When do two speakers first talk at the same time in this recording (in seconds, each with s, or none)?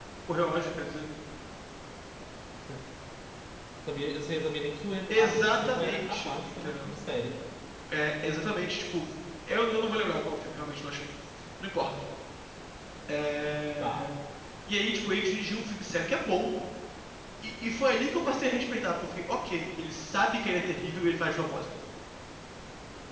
5.1 s